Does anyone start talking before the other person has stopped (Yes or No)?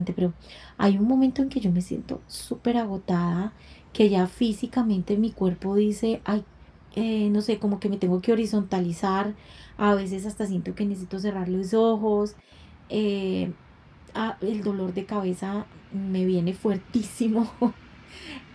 No